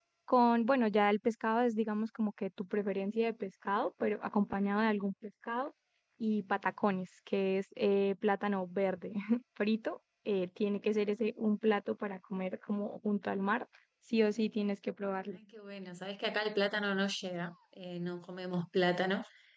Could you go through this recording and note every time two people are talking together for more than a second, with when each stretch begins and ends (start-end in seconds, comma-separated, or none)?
none